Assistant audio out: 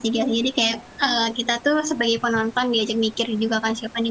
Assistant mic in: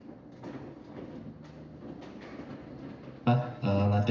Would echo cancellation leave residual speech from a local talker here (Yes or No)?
Yes